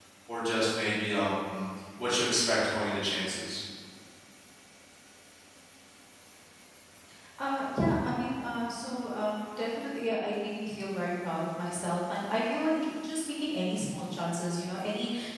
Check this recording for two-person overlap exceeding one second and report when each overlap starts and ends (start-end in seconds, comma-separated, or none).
none